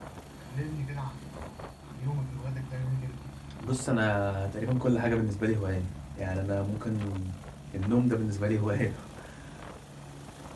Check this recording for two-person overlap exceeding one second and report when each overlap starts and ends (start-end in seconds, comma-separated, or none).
none